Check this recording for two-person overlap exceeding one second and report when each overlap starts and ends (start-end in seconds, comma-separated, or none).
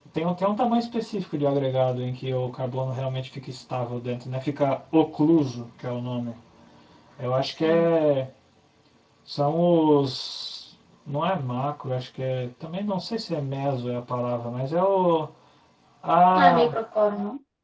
none